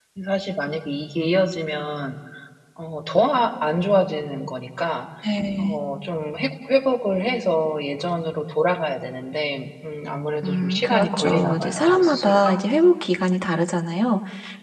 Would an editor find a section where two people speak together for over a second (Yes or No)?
Yes